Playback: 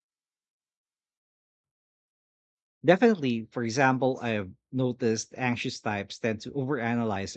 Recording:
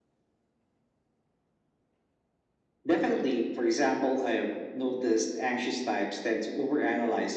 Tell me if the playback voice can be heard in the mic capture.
Yes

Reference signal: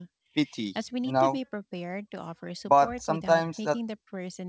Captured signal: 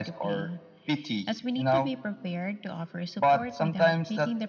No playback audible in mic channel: No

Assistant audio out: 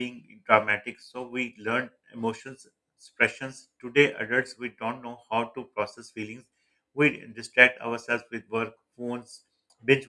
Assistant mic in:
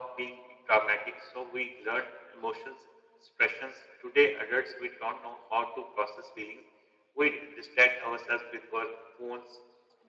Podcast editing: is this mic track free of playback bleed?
No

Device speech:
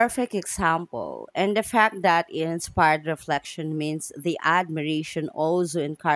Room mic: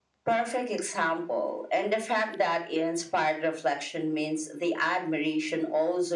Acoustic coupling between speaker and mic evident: Yes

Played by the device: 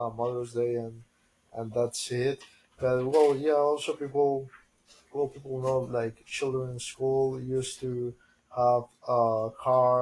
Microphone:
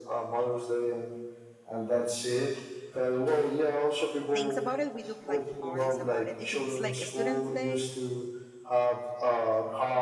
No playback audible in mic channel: No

